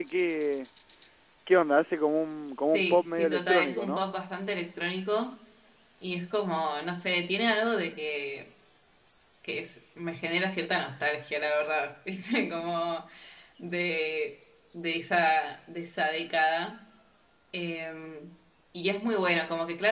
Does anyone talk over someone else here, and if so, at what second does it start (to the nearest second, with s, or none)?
3 s